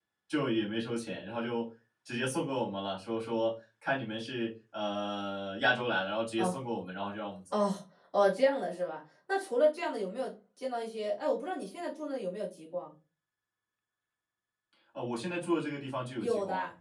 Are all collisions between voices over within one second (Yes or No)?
Yes